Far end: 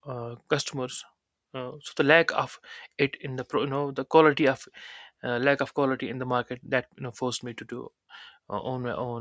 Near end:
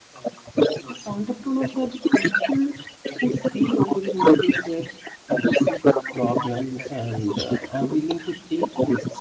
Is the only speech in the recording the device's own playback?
No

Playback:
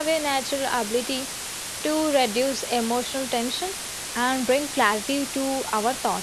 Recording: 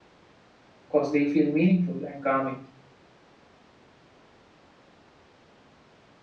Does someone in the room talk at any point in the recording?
Yes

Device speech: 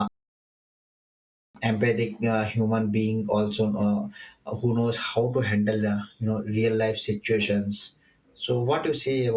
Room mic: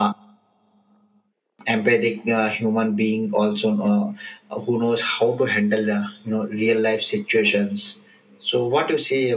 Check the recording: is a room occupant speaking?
No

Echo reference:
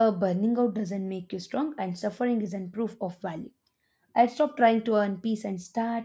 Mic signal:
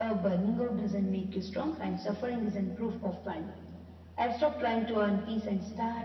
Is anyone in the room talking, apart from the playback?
No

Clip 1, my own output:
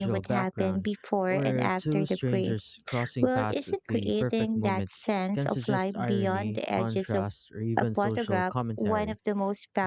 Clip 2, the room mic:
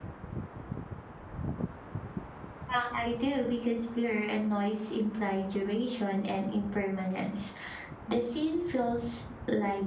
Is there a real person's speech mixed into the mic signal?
Yes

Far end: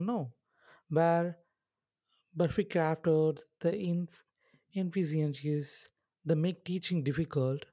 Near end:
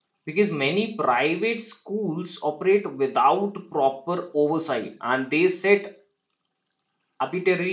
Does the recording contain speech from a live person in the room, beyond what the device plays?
Yes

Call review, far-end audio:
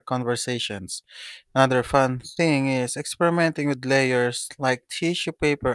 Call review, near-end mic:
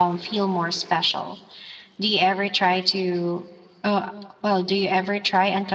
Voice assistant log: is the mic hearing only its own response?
No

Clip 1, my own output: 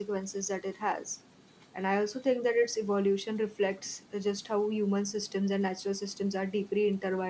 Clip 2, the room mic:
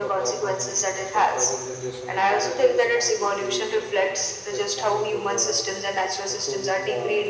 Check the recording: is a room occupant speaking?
Yes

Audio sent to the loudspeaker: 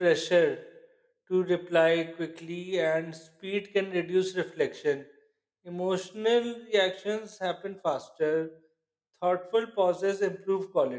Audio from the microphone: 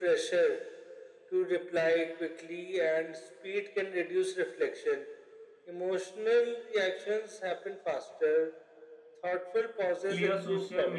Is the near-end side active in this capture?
Yes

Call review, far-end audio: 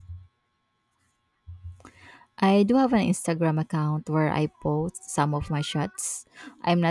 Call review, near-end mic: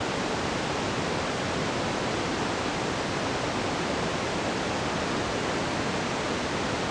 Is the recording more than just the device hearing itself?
No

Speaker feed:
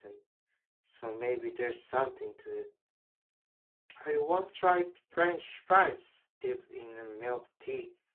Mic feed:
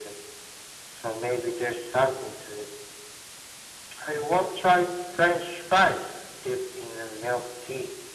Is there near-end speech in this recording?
No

